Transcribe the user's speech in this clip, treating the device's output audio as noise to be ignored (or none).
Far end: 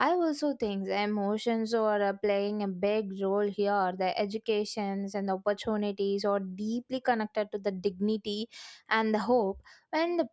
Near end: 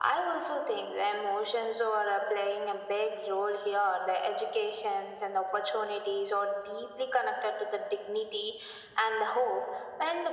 none